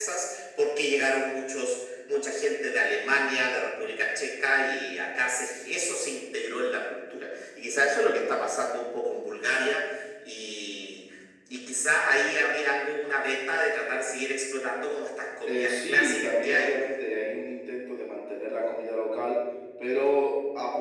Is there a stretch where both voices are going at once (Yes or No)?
Yes